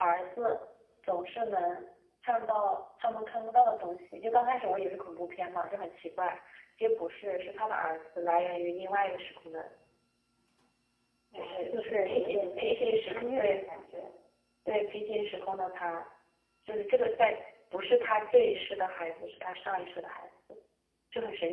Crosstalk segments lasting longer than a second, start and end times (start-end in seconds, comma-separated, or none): 11.3-13.6